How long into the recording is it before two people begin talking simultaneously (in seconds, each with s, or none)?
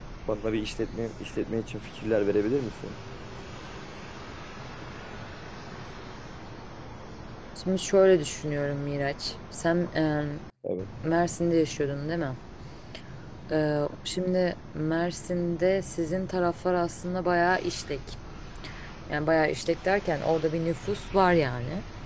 none